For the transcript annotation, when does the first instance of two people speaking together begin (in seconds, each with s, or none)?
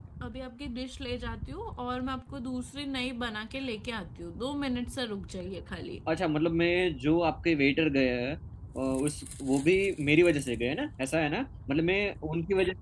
none